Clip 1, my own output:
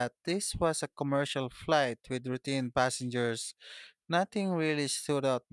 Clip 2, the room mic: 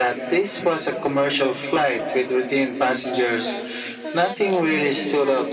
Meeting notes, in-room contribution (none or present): present